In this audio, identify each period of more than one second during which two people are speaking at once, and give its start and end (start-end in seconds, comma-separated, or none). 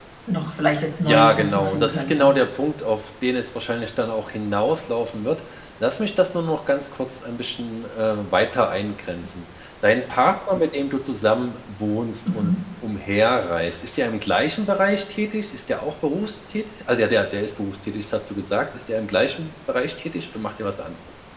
1.1-2.3